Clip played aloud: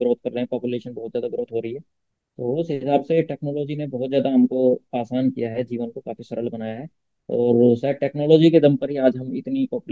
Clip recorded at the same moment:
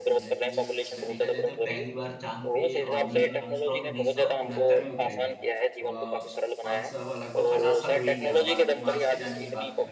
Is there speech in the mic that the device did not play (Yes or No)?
Yes